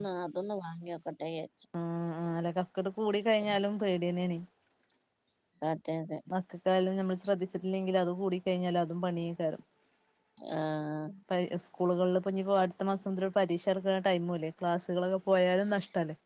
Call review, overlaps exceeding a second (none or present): none